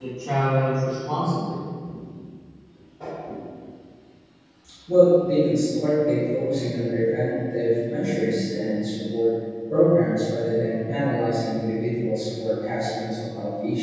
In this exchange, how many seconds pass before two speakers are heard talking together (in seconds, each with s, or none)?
none